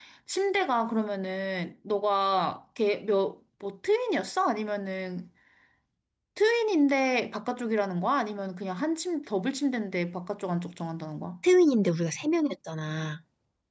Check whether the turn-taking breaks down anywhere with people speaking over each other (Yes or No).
No